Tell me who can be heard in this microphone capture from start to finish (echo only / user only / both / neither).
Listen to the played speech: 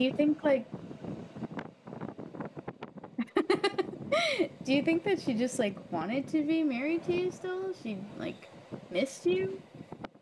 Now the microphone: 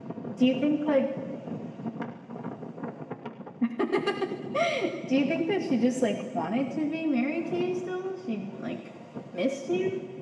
echo only